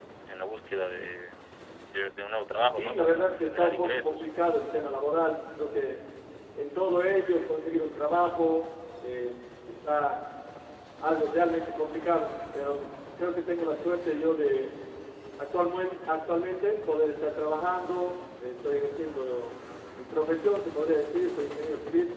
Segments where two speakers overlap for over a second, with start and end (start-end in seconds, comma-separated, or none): 2.8-4.2